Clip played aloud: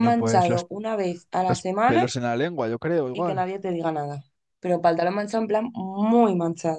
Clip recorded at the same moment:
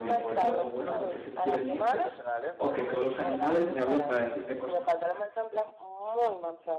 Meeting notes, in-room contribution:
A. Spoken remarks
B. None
A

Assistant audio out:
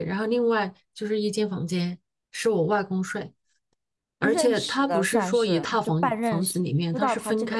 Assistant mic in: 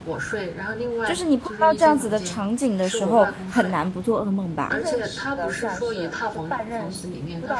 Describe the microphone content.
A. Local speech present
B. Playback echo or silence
A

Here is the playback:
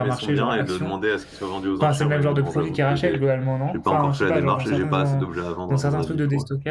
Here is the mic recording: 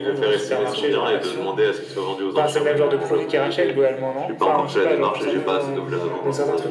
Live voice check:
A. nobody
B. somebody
B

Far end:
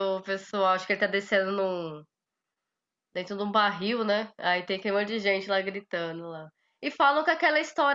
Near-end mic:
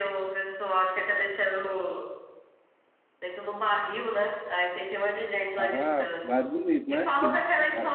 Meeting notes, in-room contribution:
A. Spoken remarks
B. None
A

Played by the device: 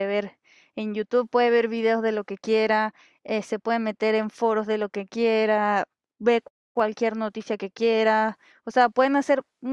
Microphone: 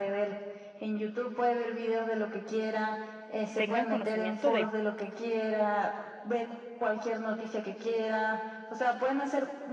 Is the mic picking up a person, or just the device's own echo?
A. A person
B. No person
A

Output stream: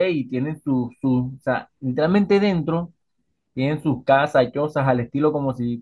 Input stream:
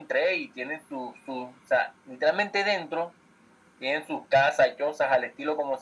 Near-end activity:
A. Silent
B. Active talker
A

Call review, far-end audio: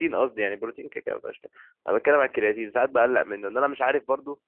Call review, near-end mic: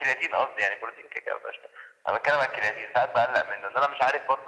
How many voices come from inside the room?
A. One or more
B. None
B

